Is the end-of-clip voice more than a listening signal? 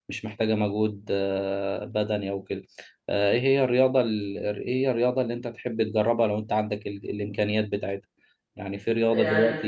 No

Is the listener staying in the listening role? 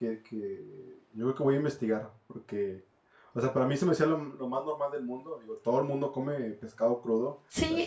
Yes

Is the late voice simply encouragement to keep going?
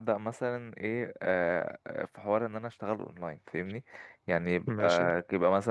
Yes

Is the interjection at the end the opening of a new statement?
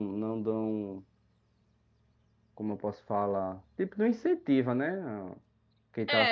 Yes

